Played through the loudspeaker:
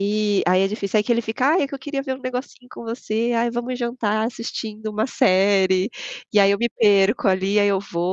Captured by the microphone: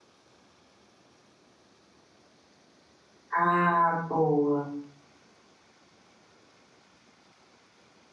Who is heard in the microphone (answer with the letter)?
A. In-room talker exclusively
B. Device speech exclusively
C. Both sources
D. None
A